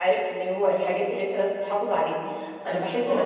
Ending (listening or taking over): listening